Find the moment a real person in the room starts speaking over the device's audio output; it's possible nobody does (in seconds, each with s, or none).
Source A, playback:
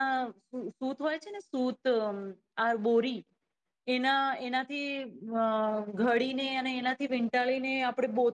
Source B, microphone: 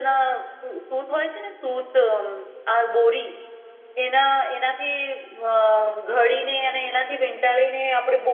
none